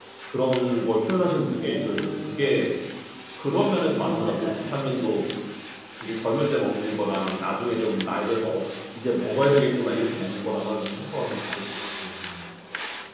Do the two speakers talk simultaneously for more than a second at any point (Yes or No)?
Yes